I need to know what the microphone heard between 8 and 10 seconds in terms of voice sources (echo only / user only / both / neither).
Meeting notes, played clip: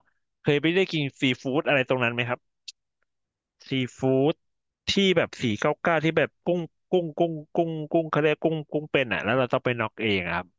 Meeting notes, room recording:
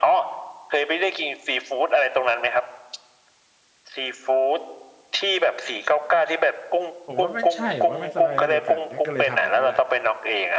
both